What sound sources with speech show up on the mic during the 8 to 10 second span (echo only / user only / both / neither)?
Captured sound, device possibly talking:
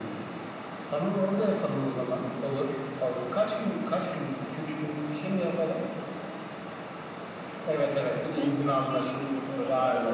both